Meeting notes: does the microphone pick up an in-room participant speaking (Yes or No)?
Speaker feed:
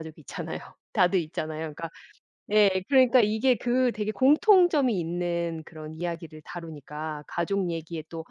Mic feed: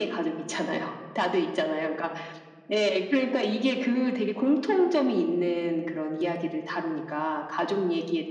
No